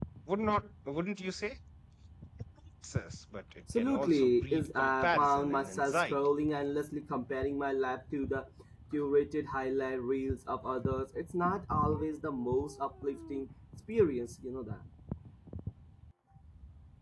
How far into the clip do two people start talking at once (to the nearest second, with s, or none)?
4 s